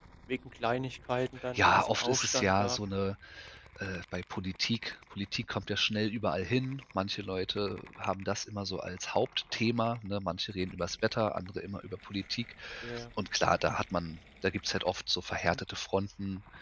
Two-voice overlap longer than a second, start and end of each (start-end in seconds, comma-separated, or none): 1.5-2.8